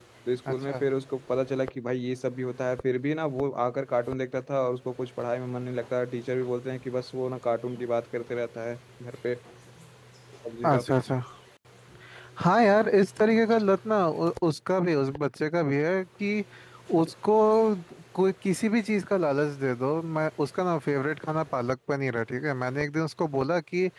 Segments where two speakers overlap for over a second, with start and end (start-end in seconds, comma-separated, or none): none